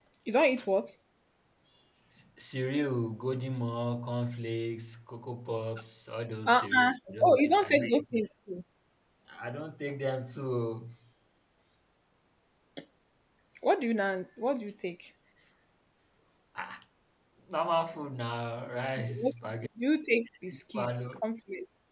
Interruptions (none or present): present